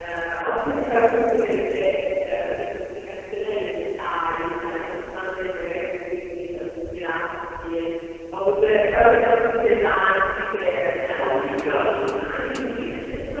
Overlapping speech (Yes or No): Yes